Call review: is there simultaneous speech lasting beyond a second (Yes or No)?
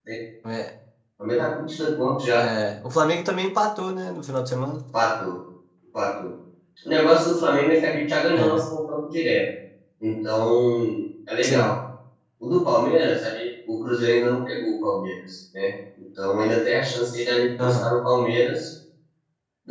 No